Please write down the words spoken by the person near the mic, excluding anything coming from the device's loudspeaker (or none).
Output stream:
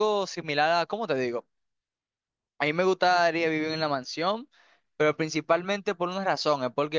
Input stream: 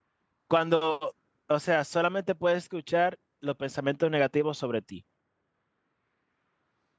cuando, o sea, solamente puedes escuchar los pensamientos negativos sobre ti.